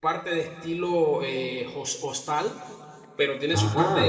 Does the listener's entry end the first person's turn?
No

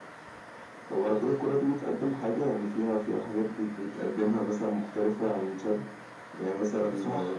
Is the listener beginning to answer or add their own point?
No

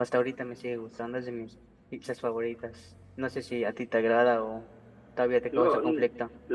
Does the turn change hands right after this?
Yes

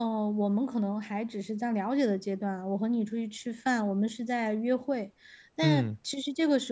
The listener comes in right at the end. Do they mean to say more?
No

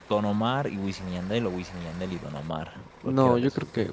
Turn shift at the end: Yes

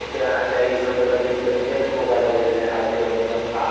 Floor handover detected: No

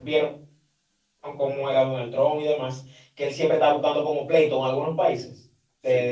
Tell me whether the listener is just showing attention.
Yes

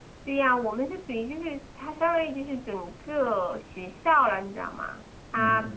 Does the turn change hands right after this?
No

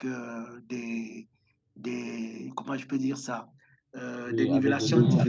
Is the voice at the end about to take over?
Yes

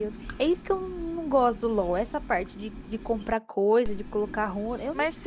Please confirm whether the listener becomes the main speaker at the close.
Yes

